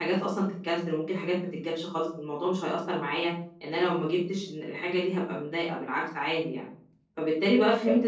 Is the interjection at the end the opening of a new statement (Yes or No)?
No